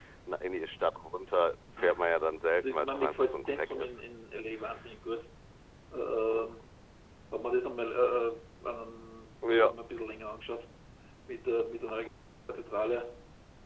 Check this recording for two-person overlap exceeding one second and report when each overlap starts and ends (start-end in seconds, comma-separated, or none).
2.6-4.0